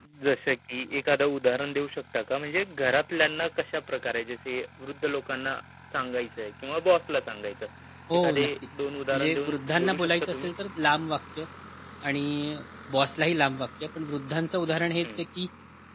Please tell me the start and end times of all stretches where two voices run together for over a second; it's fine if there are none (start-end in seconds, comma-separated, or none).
9.1-10.5